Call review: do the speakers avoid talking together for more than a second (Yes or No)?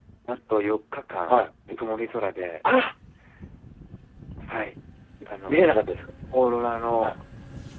Yes